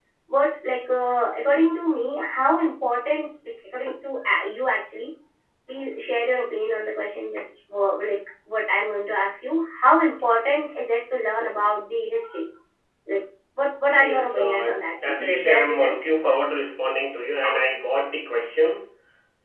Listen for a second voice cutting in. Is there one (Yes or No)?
Yes